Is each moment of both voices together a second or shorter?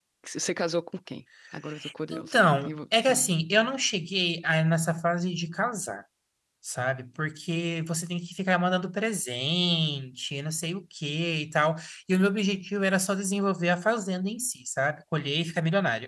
No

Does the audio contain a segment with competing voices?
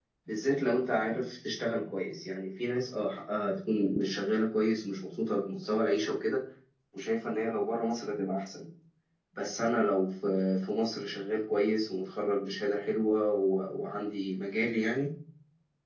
No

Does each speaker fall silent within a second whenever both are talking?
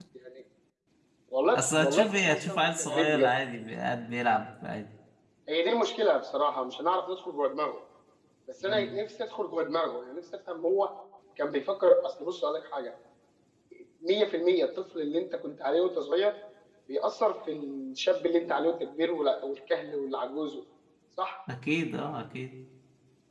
No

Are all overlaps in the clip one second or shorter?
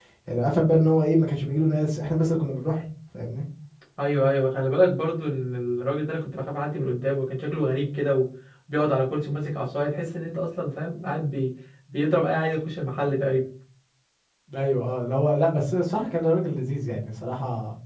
Yes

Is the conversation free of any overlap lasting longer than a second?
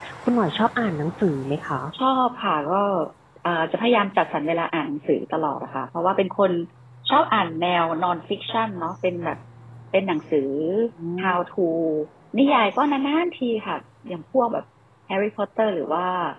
Yes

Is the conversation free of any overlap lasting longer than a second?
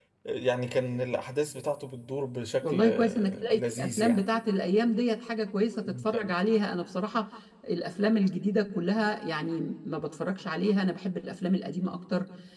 No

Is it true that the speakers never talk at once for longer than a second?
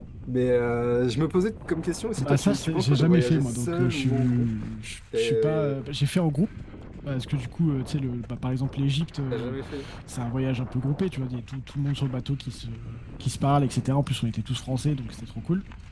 No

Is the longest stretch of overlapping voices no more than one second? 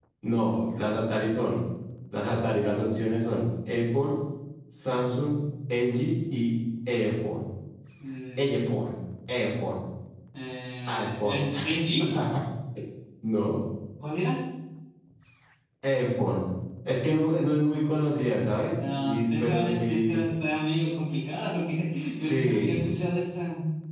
No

